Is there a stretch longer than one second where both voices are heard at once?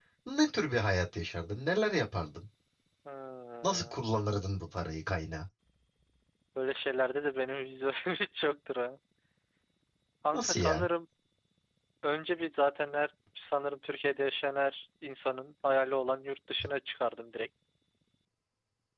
No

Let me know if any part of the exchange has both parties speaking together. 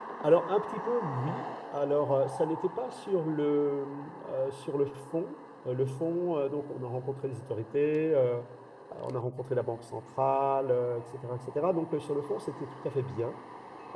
No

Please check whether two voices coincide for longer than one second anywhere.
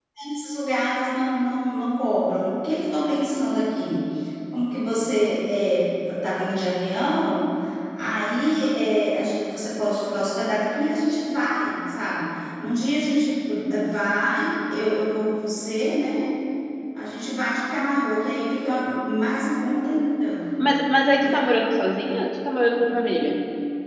No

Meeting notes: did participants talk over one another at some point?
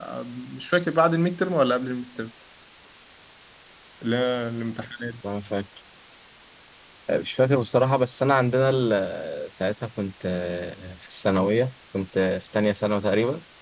No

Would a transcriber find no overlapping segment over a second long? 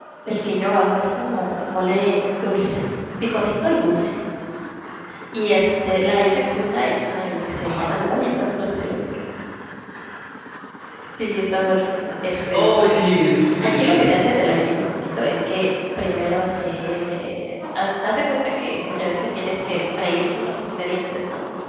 No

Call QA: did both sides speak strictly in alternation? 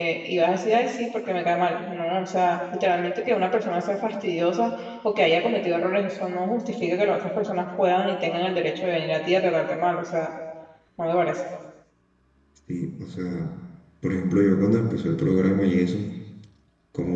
Yes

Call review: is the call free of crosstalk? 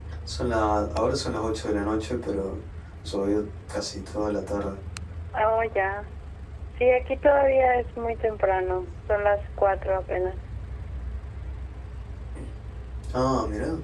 Yes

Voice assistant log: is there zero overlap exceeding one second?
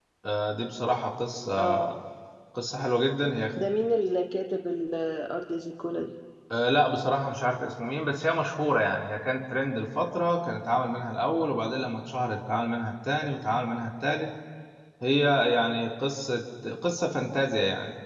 Yes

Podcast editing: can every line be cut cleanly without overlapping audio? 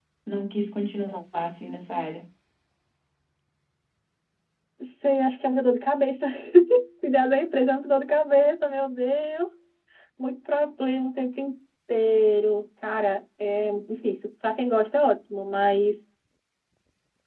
Yes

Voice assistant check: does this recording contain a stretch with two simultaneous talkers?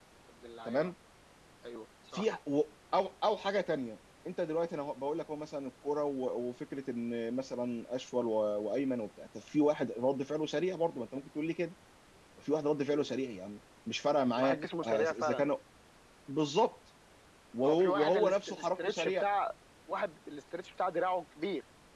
Yes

